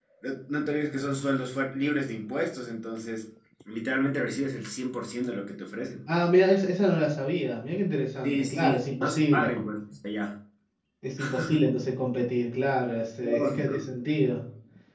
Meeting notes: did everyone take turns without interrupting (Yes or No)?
No